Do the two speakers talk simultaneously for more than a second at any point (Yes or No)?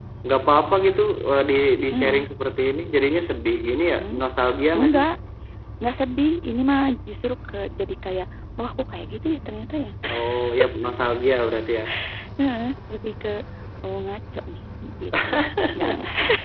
No